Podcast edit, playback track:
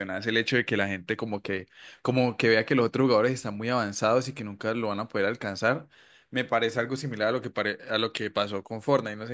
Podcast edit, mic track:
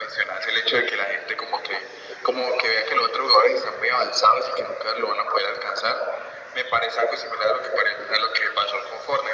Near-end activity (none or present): none